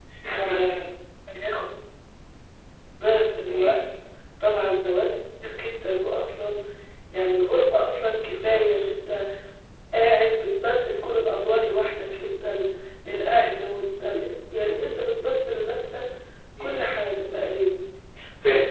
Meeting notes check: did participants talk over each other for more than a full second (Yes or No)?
No